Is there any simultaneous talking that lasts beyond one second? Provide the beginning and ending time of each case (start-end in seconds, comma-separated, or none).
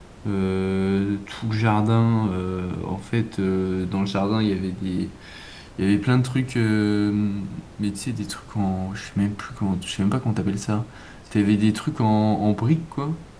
none